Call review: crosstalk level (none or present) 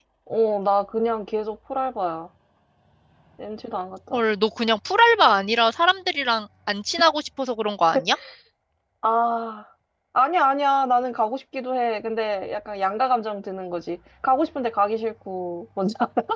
none